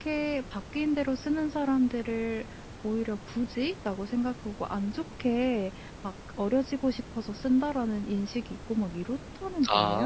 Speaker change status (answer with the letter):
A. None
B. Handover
B